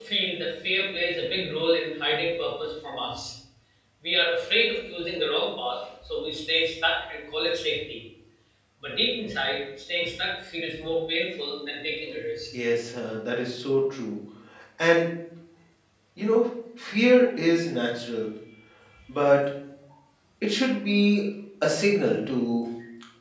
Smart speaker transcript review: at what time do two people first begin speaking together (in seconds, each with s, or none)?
none